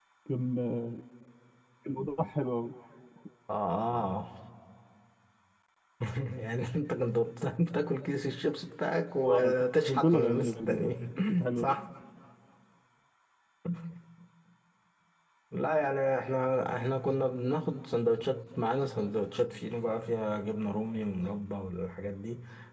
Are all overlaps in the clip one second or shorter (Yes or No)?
No